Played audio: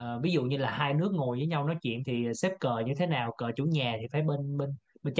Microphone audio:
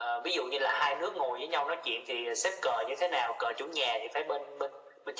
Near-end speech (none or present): none